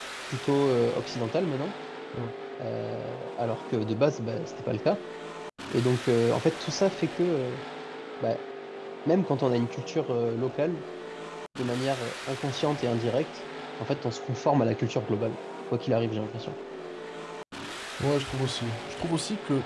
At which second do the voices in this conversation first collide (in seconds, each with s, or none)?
none